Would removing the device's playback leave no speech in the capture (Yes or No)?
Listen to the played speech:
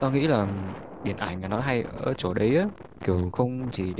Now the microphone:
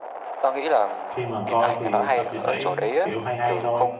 No